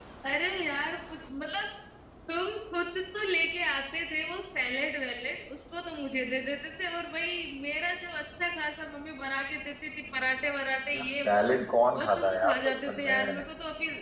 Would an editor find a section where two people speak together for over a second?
Yes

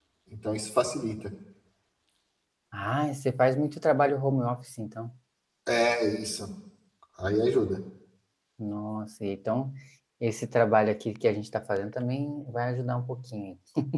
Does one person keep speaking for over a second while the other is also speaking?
No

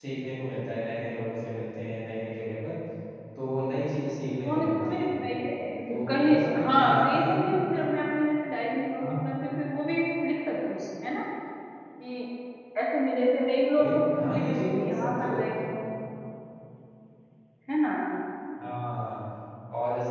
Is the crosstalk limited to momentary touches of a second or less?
No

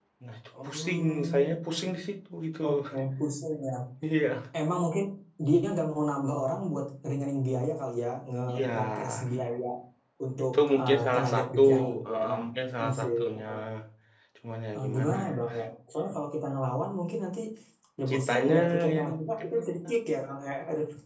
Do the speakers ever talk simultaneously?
Yes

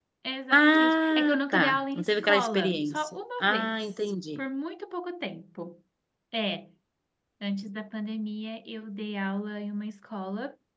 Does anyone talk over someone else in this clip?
Yes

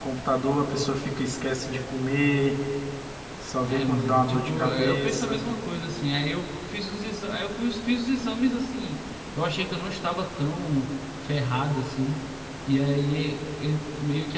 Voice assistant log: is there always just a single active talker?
No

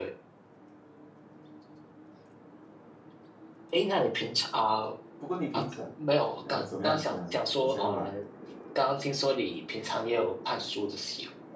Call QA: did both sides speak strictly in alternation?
No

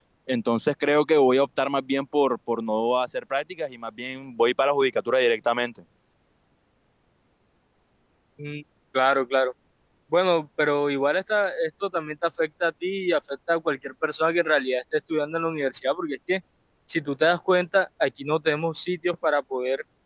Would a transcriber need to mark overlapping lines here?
No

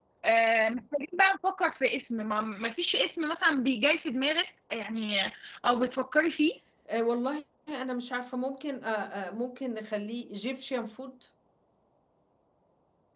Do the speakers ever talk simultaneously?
No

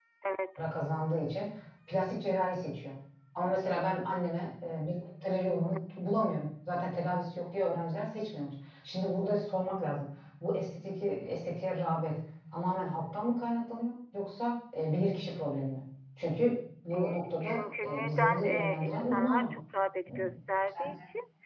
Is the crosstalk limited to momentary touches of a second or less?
No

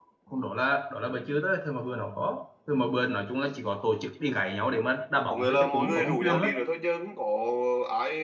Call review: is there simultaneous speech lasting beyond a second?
Yes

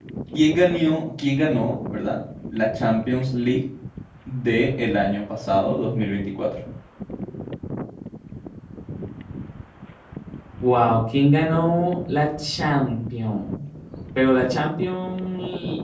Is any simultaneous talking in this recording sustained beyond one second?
No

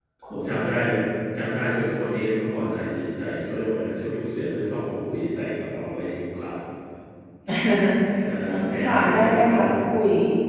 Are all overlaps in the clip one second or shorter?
No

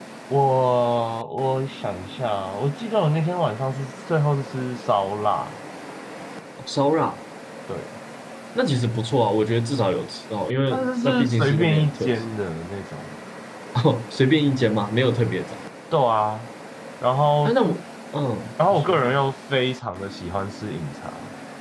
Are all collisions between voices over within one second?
No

